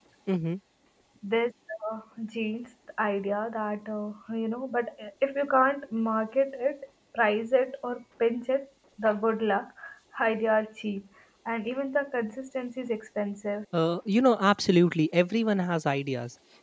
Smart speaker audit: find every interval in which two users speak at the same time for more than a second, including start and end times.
none

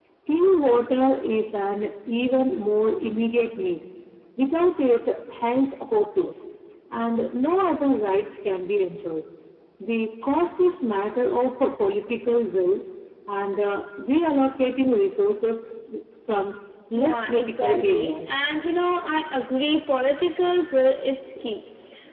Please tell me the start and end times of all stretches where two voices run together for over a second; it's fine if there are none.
16.9-18.4

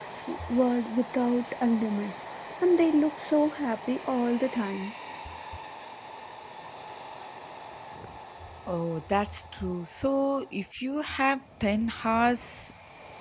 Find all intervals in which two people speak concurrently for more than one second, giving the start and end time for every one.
none

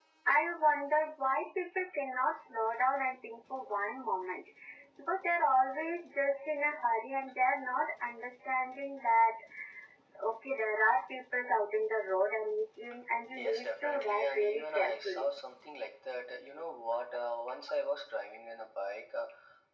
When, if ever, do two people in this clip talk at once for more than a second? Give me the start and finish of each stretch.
13.3-15.3

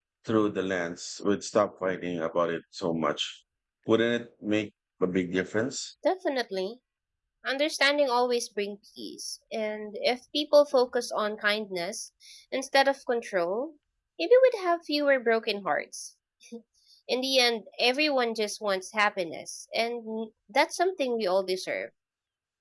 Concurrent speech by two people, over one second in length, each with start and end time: none

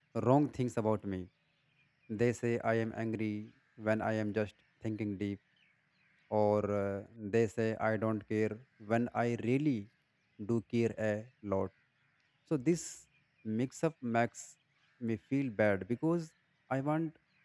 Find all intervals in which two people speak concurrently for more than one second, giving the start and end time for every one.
none

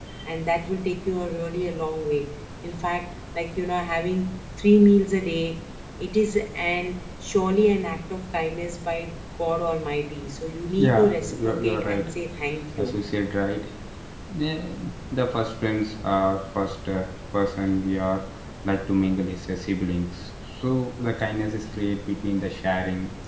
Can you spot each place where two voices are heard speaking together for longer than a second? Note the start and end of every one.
10.8-12.1

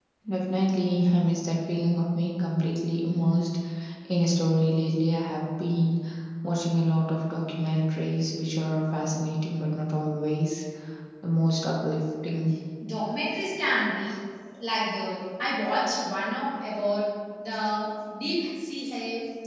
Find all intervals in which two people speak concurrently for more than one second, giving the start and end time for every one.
none

